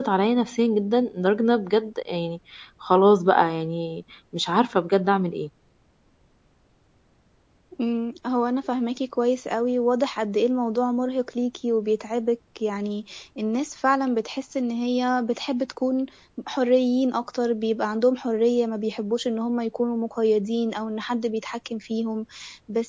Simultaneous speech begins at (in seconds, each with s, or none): none